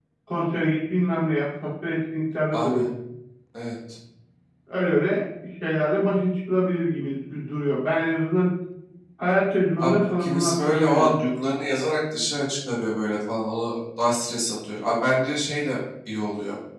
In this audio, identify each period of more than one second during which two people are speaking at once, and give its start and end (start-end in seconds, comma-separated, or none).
9.8-11.1